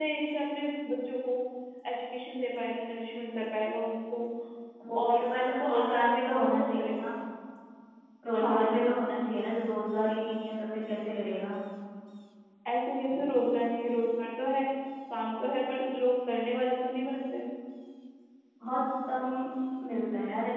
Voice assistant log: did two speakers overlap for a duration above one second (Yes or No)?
Yes